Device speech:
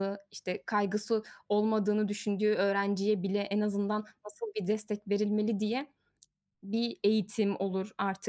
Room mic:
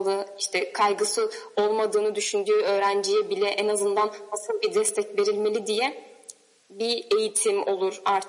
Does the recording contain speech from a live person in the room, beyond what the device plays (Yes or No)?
No